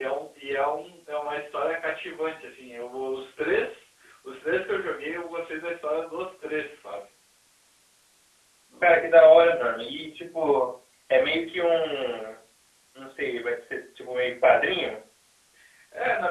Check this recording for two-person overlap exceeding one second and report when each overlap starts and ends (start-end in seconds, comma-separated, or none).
none